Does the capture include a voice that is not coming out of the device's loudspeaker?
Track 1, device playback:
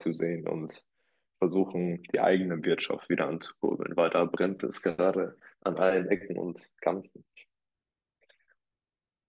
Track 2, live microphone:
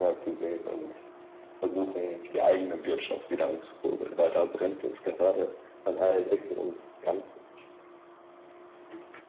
No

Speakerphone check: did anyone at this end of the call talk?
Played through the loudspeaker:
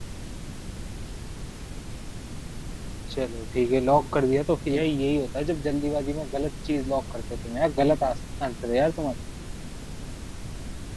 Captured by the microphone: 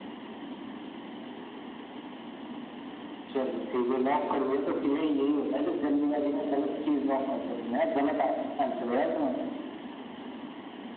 No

